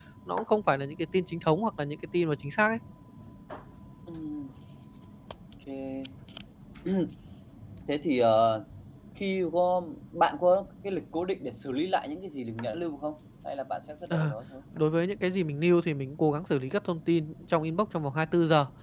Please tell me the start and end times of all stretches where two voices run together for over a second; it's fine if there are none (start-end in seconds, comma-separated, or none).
none